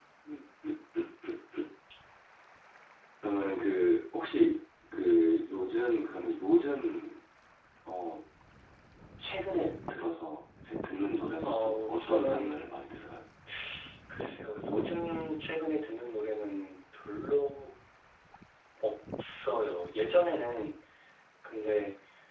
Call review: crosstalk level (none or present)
present